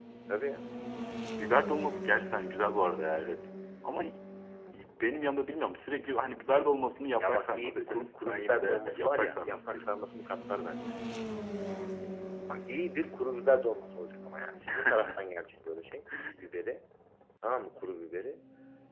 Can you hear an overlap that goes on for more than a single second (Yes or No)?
Yes